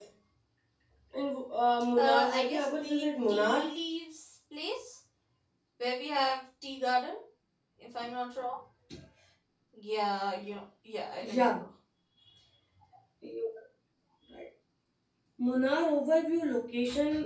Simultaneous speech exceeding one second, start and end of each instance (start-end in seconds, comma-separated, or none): 2.0-3.7